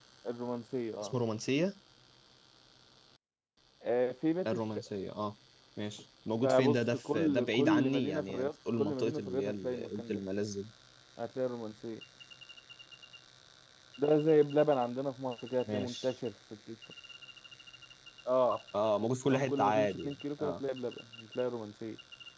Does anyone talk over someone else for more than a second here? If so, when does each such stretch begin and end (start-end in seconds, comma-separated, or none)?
6.4-10.2, 19.3-20.6